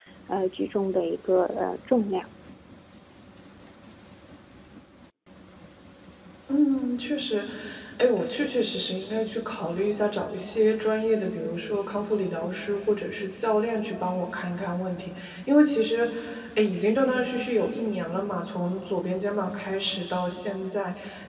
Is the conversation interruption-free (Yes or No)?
Yes